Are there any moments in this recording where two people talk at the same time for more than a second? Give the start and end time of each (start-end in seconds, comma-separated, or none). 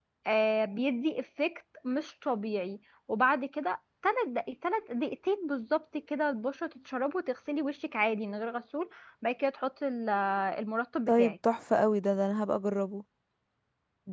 none